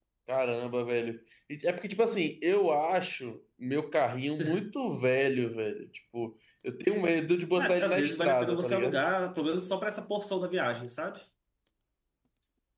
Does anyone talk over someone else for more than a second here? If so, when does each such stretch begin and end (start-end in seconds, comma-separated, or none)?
7.6-9.0